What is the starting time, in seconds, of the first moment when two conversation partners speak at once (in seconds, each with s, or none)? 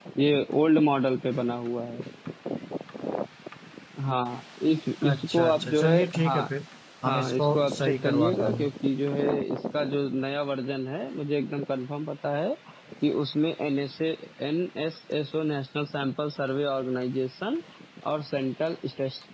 5.1 s